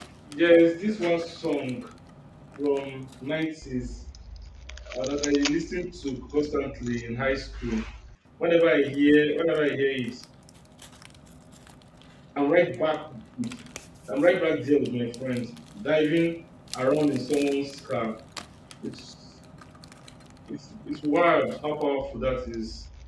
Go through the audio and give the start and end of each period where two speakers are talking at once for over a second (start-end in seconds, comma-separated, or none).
none